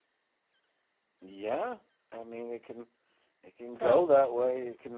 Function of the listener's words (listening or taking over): listening